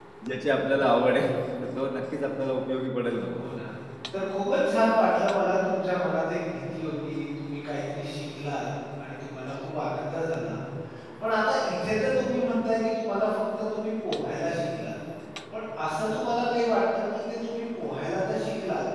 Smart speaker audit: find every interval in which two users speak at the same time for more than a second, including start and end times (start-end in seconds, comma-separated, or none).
none